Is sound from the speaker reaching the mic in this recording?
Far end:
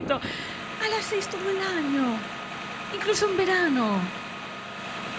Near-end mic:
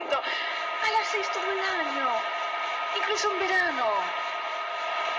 Yes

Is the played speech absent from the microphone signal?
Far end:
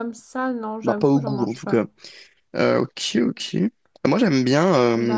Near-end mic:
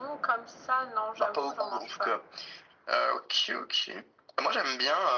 No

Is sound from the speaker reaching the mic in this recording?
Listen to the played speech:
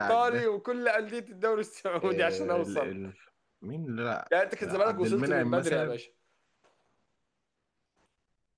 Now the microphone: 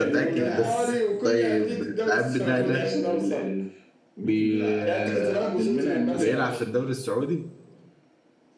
Yes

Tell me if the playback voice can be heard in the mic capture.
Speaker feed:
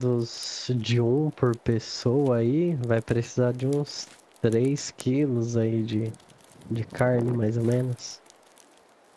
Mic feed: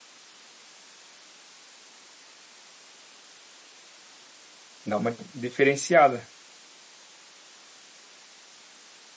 No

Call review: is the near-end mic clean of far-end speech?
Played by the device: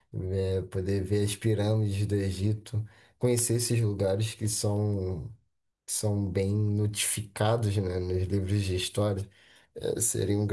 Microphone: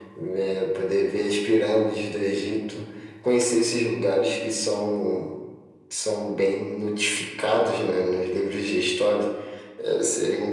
No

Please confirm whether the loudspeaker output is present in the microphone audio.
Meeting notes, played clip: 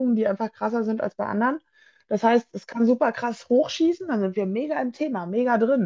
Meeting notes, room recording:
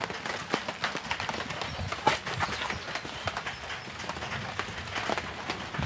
No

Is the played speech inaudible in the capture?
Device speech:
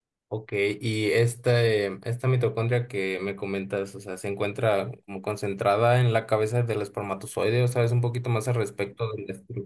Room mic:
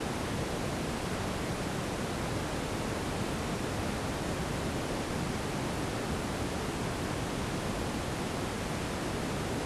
Yes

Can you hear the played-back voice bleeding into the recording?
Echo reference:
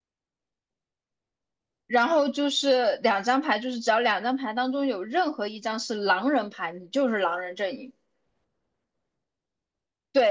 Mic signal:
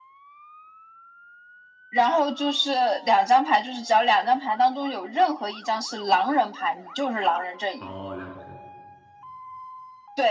Yes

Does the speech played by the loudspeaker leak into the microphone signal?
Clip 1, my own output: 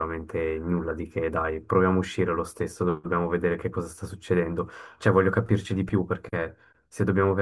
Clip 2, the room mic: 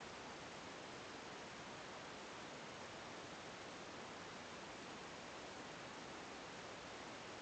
No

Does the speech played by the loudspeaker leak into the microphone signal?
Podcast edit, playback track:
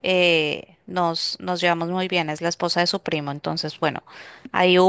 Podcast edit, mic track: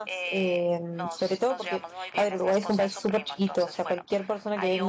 Yes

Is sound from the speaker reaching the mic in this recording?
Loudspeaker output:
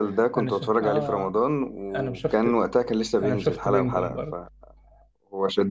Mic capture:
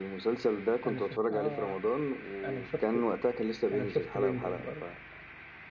Yes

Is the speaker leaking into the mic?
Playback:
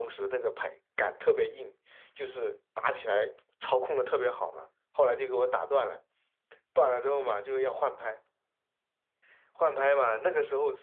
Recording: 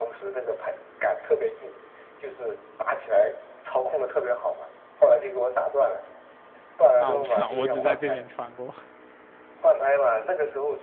Yes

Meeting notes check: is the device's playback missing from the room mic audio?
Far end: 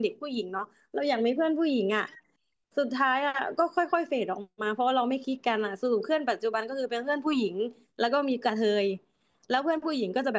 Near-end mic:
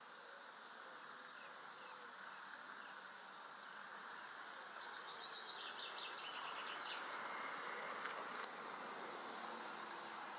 Yes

